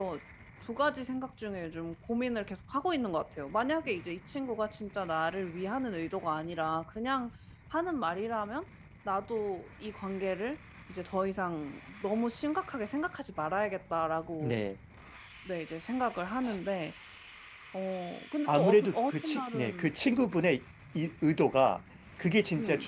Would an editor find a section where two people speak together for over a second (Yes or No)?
Yes